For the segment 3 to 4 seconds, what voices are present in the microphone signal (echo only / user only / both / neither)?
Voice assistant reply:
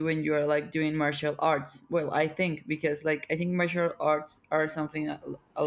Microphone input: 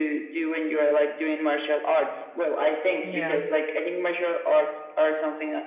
both